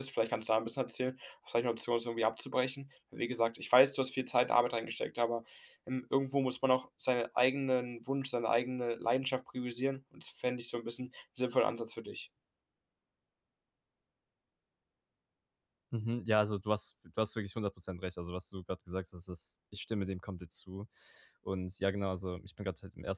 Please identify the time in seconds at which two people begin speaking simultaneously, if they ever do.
none

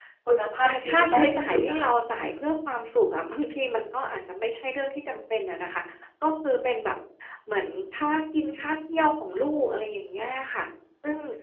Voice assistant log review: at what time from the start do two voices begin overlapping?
0.6 s

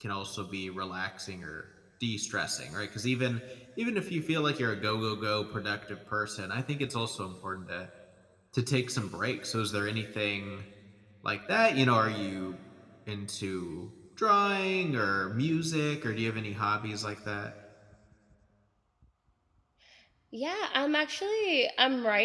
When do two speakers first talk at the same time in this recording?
none

